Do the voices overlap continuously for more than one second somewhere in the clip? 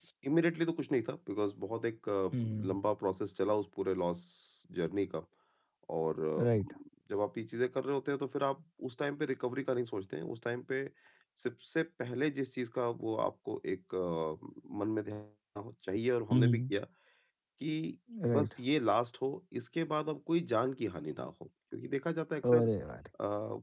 No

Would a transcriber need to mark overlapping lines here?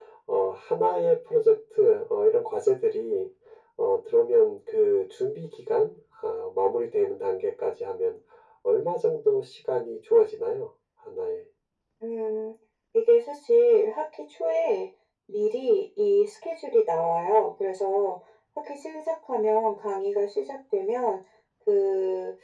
No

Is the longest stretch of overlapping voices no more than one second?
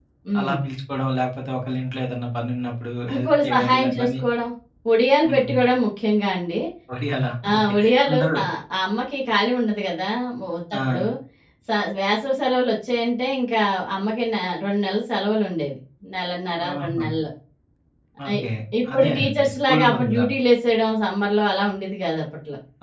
No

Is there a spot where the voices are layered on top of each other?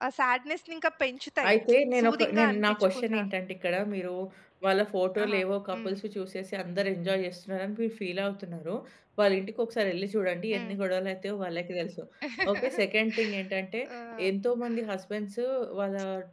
Yes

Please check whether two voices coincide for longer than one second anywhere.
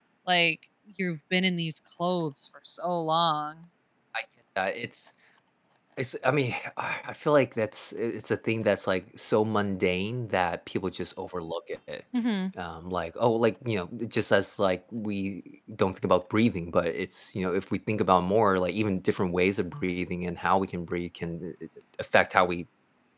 No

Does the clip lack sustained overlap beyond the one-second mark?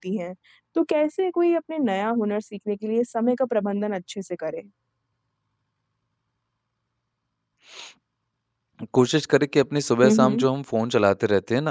Yes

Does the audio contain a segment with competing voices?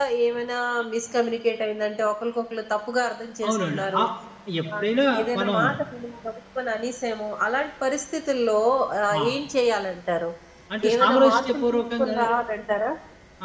Yes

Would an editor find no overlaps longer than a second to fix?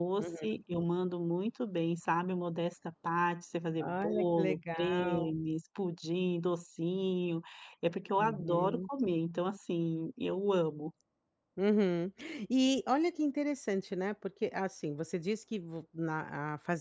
No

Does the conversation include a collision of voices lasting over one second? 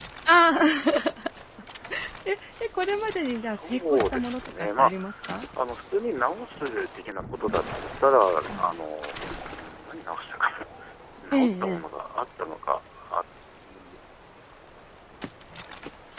Yes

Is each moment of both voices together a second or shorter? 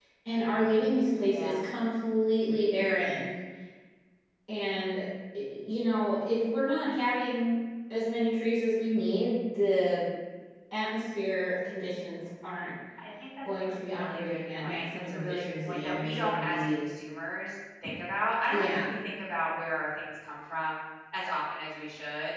No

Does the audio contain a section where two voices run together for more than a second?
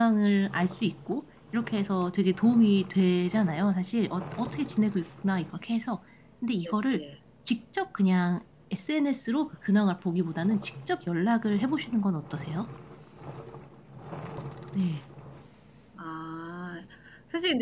No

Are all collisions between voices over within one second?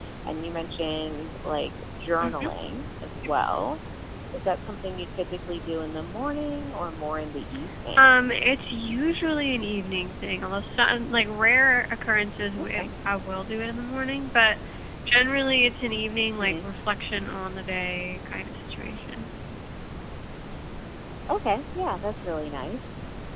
Yes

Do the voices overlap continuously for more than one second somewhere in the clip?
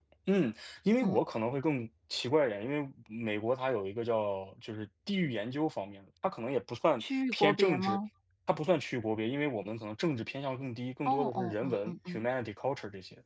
Yes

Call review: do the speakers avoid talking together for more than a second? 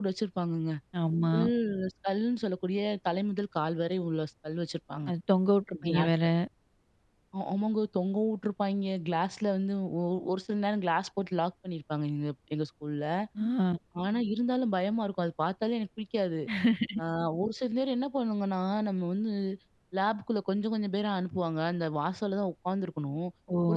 Yes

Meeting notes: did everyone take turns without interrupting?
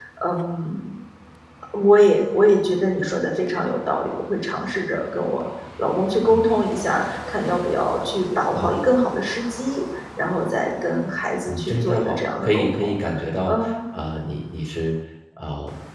No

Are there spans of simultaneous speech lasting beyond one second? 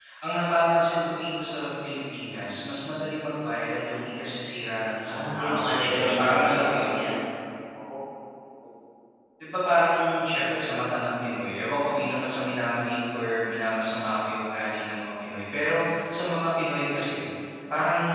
Yes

